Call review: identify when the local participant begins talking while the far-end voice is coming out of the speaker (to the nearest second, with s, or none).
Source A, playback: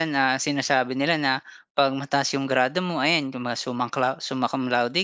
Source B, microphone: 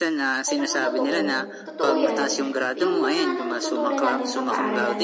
0 s